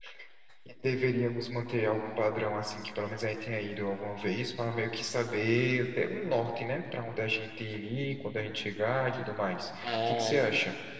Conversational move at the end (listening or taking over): taking over